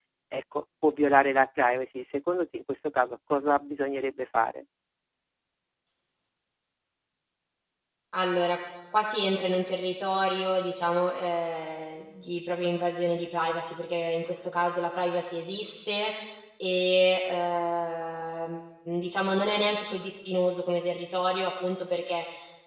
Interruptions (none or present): none